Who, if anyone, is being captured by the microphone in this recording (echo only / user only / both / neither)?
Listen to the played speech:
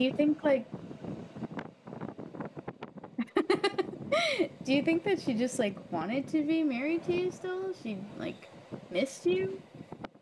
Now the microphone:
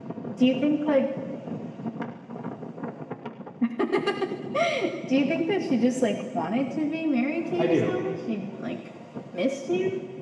both